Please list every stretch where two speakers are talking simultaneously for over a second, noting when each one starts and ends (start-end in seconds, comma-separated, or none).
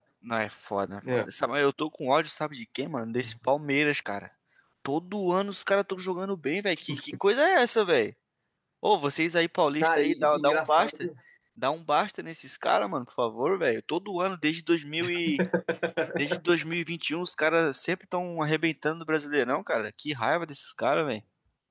9.8-11.1